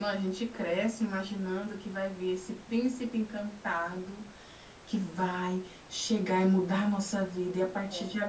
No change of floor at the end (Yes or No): Yes